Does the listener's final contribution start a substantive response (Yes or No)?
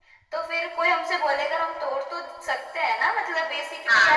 Yes